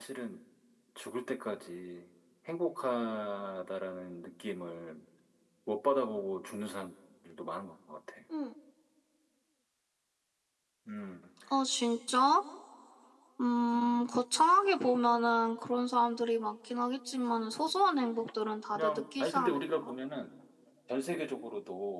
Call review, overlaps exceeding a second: present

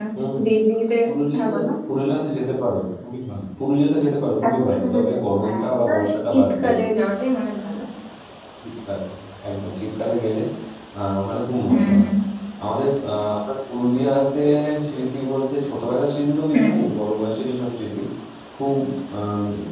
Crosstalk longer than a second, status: present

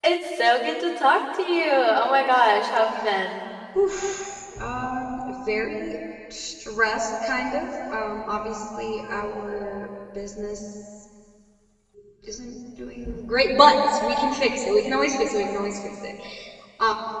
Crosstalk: none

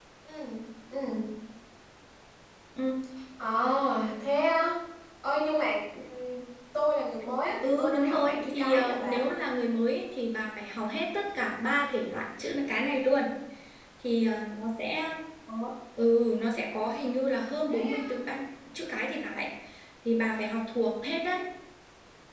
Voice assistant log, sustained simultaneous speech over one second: present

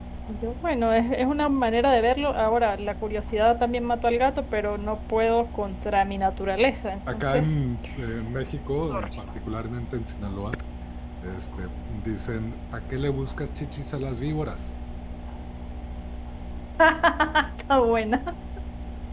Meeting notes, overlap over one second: none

